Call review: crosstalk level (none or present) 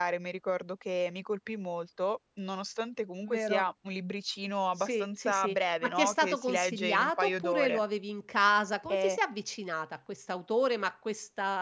present